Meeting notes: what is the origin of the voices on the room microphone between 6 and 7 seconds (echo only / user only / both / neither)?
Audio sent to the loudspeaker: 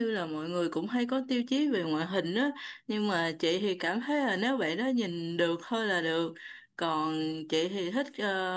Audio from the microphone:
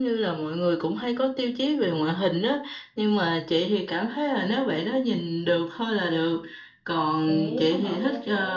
echo only